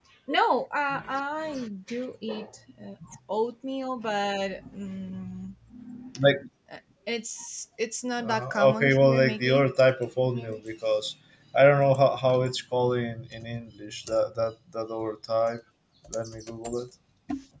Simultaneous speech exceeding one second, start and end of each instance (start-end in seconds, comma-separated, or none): 8.2-9.7